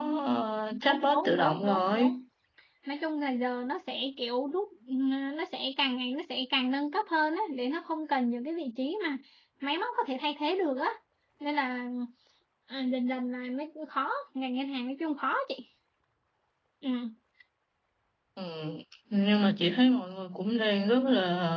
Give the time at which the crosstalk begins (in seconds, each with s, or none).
0.8 s